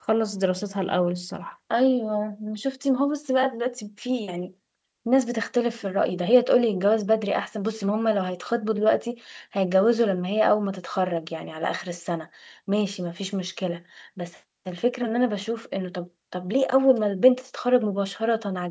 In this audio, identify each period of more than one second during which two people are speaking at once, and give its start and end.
none

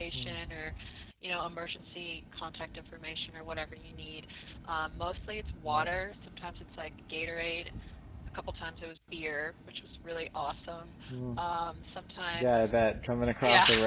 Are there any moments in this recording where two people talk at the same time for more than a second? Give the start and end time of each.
none

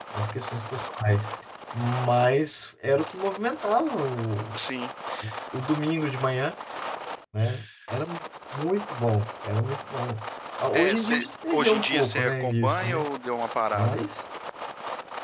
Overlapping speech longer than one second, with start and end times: 10.7-13.1

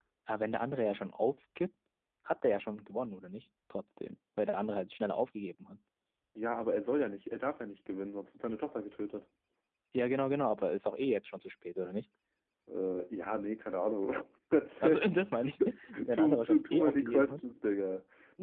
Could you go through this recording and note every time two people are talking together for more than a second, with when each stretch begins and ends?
16.1-17.4

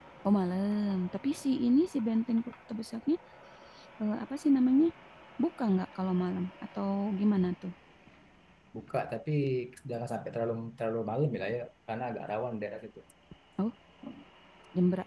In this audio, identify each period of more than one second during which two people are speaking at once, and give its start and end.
none

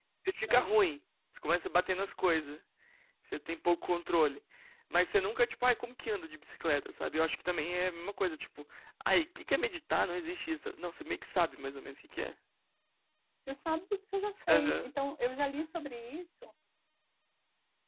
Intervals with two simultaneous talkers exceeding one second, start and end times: none

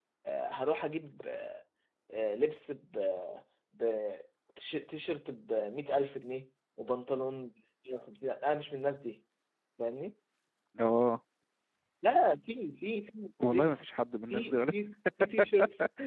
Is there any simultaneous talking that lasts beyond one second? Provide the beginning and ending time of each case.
none

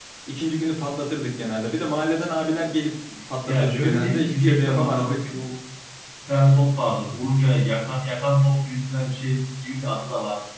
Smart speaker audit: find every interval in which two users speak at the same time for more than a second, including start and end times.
3.5-5.3

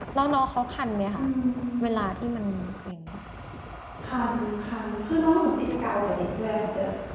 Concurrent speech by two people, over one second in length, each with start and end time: none

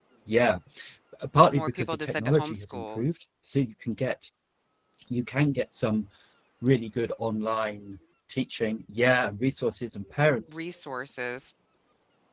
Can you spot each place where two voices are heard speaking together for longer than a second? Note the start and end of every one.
1.5-3.0

